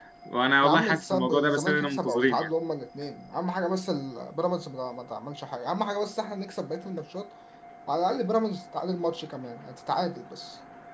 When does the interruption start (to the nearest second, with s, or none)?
1 s